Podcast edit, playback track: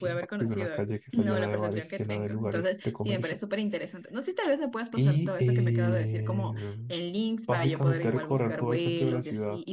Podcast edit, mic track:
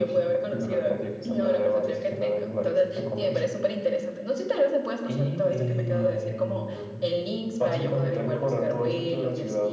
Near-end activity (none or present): none